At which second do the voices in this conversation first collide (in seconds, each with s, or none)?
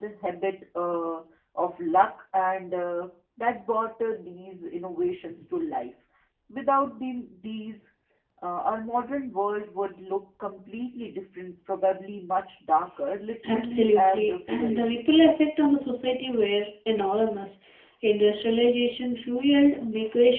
13.4 s